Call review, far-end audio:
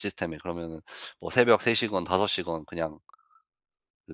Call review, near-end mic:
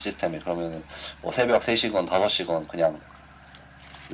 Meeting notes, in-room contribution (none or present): none